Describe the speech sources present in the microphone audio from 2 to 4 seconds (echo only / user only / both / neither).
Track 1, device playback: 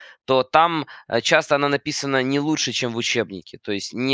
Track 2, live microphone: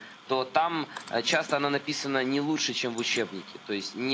echo only